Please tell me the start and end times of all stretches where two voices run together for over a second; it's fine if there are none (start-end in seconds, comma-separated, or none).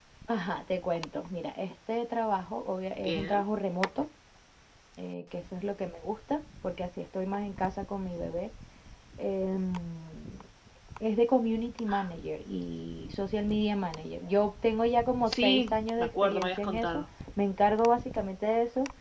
15.2-17.0